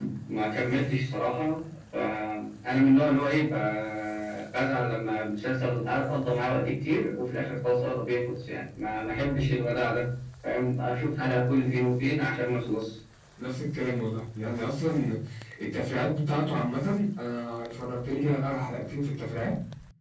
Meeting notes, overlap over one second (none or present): none